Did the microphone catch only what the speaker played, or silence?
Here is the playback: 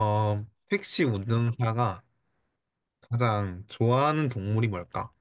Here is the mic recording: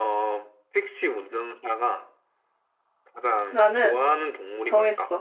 No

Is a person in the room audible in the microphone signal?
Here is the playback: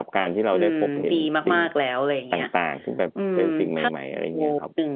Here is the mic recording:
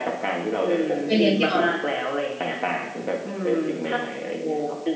Yes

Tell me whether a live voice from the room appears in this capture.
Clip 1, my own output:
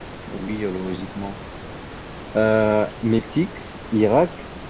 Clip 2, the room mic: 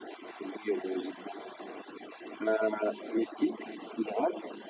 No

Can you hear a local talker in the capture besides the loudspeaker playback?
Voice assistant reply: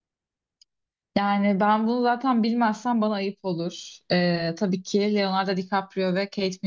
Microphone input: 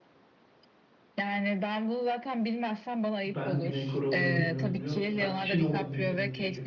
Yes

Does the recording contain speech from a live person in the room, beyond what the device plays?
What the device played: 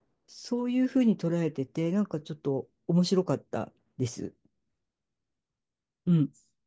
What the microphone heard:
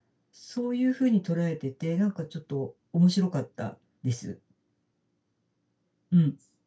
No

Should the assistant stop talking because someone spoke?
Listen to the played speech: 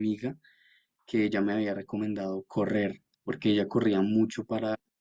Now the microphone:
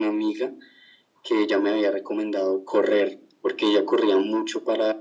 No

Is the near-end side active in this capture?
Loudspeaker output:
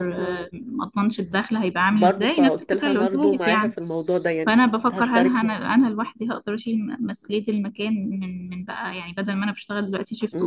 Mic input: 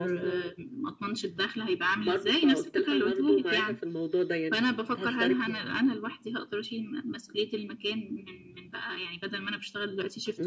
No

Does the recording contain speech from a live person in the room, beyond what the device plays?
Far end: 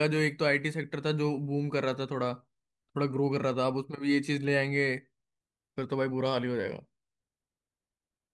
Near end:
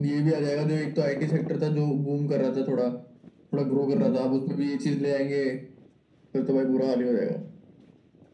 No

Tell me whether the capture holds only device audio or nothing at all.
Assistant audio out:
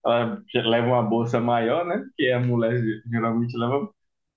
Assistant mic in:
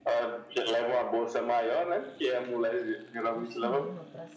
No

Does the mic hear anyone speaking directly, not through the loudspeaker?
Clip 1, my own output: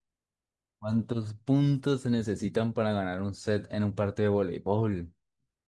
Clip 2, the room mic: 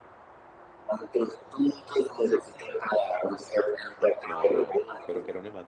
Yes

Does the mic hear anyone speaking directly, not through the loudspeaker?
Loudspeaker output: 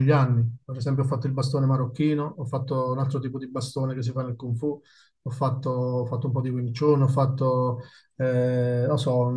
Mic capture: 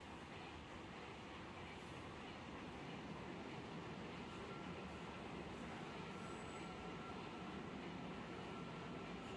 No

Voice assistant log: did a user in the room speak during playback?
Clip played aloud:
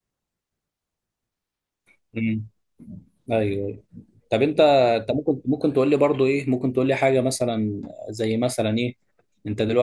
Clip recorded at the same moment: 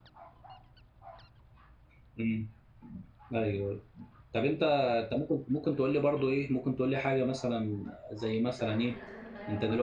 Yes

